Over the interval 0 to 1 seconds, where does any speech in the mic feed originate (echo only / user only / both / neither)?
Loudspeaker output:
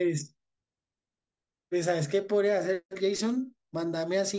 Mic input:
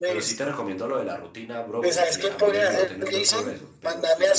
both